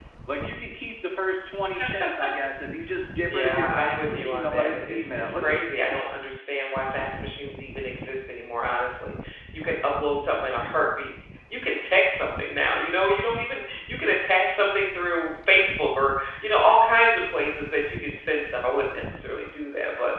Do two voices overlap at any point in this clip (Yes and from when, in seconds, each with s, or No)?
Yes, from 3.2 s